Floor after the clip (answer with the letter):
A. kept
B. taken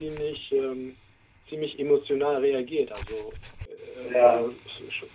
A